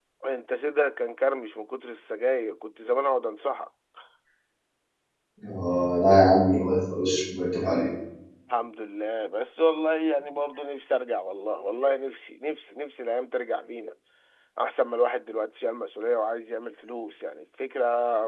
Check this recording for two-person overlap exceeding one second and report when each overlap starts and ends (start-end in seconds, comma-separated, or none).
none